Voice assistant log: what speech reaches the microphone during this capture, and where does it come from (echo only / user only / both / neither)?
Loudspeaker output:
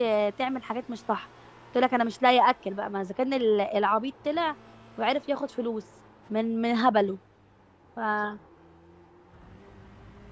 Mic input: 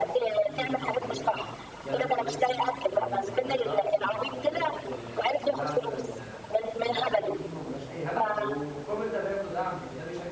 both